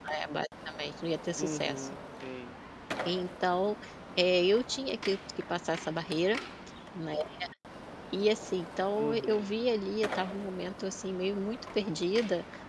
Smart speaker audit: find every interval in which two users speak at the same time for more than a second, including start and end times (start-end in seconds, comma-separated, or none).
none